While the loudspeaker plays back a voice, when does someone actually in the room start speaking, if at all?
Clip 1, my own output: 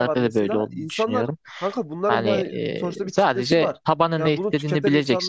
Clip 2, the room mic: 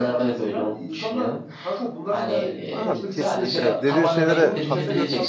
2.7 s

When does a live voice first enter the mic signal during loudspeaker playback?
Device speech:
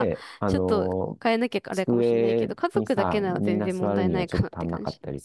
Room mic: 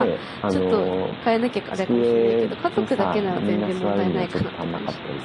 none

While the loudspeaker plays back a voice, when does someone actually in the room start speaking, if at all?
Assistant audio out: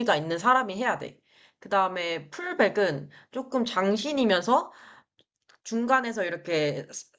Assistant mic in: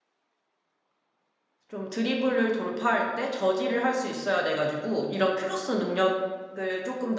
1.7 s

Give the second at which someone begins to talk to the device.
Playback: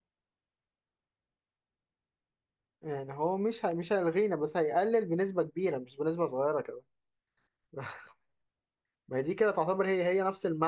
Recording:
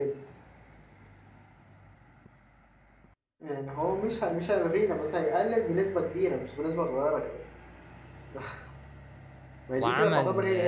9.8 s

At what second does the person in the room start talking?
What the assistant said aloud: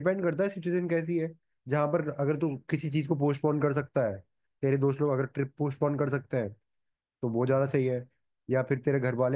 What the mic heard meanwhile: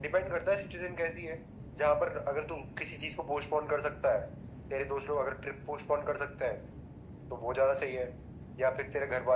none

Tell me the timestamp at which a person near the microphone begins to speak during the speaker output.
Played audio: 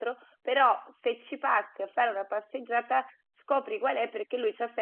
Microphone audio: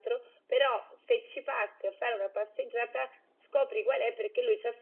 none

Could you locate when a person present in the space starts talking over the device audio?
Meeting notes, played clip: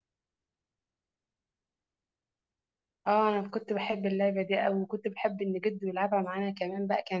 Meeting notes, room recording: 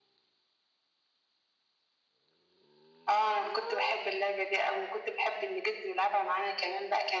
none

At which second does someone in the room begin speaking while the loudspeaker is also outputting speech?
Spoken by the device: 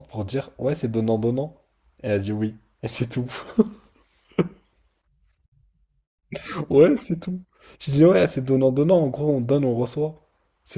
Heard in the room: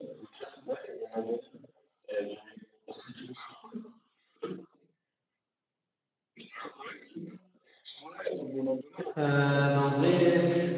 9.2 s

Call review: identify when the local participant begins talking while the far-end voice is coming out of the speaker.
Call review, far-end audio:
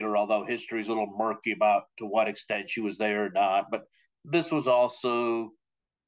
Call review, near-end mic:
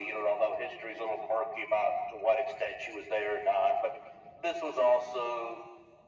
none

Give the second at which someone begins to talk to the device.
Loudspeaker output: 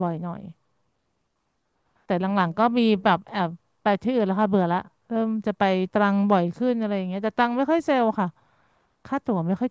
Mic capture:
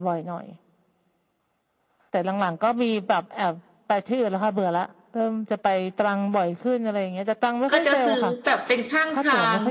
7.7 s

